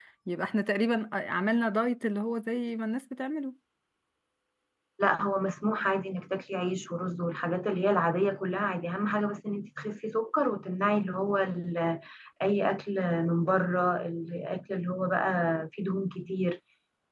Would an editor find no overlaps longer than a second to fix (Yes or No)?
Yes